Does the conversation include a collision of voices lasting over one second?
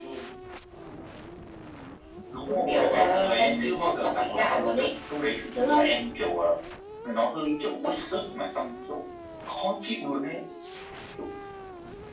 Yes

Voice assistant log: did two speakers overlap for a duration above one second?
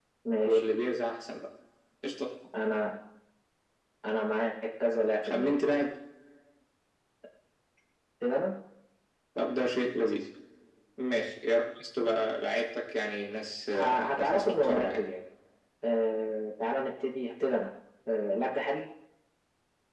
Yes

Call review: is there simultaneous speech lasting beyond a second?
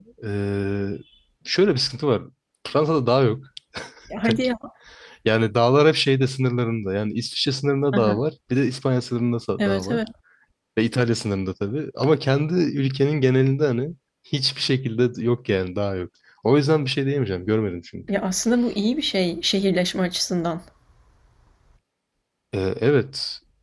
No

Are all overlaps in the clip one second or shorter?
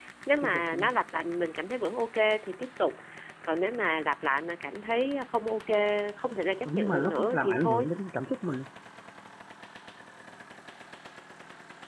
No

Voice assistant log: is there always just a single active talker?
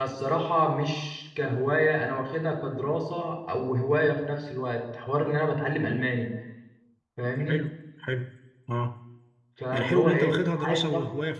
No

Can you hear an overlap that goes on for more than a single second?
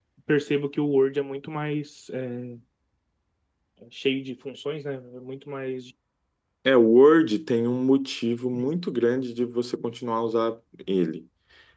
No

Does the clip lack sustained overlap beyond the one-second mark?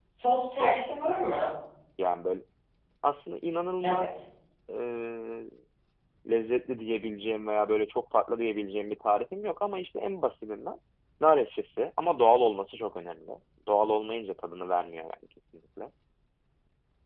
Yes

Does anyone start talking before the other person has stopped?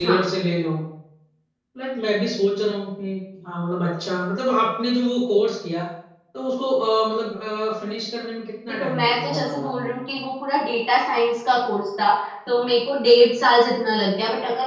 Yes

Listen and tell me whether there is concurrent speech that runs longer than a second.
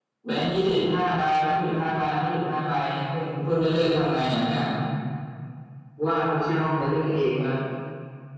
No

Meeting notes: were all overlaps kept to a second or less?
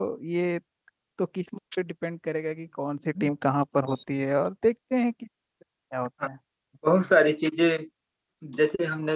Yes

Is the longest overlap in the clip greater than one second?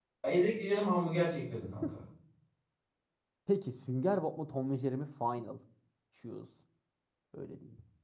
No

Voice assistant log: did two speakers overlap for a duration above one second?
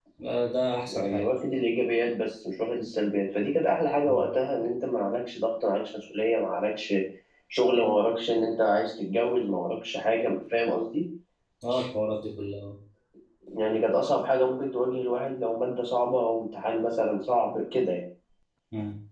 No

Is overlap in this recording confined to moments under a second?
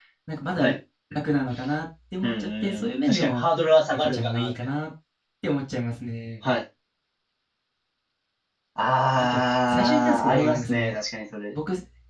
No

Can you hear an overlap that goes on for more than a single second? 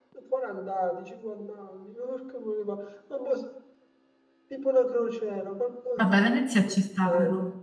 No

